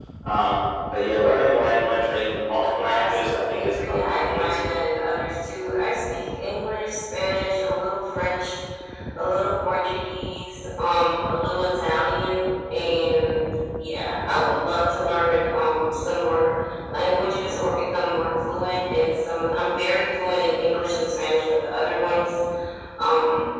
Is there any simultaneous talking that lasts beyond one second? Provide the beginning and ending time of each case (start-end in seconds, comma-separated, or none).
2.6-4.6